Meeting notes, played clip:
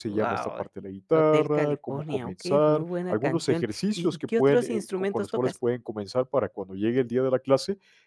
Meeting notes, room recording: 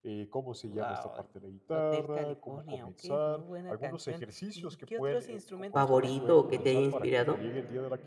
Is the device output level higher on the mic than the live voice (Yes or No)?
No